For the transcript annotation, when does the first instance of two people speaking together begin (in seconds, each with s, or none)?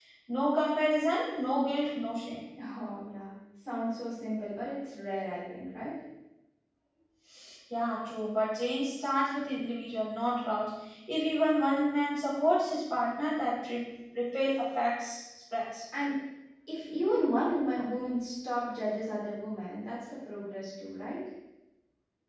none